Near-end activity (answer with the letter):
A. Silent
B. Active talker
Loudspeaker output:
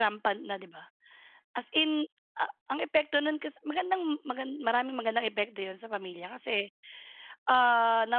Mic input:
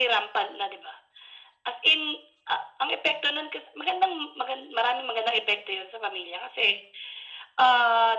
A